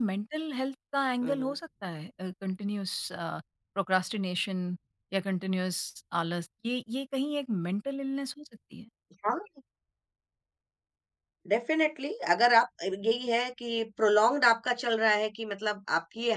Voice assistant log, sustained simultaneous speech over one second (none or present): none